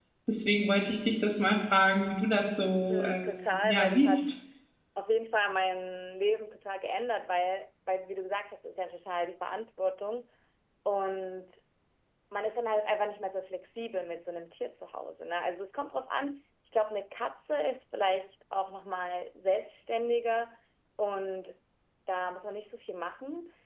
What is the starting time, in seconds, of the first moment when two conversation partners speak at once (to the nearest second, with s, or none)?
3 s